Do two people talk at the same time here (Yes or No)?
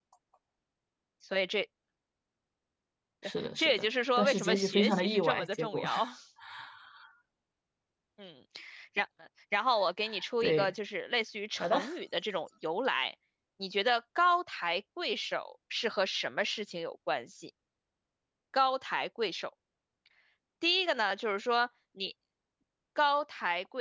Yes